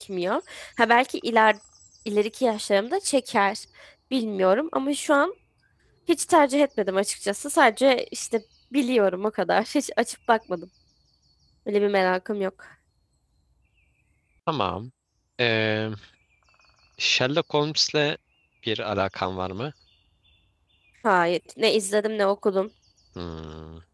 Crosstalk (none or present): none